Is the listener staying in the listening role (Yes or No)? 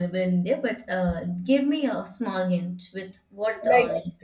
No